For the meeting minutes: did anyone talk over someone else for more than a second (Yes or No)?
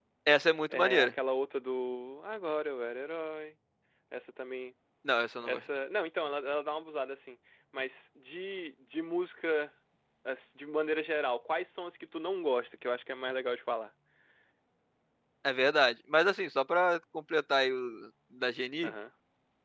No